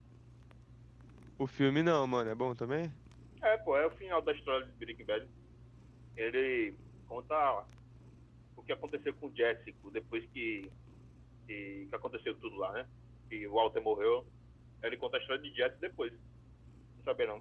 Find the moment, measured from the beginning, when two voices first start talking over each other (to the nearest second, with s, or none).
none